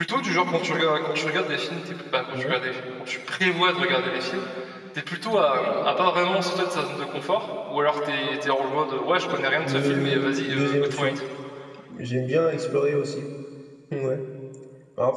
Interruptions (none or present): present